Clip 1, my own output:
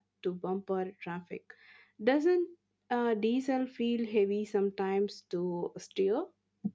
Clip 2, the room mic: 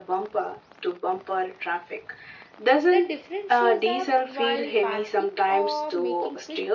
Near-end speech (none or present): present